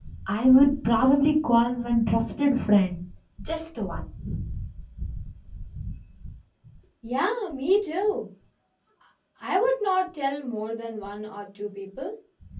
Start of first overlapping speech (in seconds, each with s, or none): none